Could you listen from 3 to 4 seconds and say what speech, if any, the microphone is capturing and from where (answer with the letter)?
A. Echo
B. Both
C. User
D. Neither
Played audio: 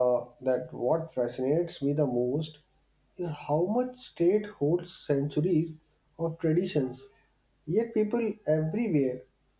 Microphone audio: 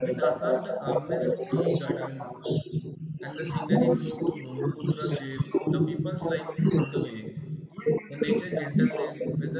B